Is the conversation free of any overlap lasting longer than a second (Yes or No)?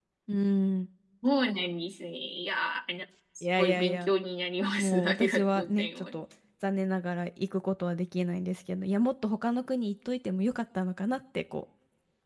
No